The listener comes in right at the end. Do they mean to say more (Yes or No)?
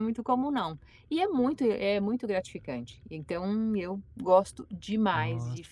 No